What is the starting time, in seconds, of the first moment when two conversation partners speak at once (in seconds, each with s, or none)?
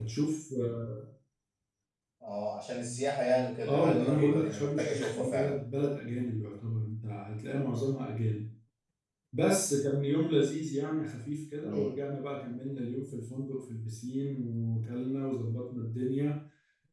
3.7 s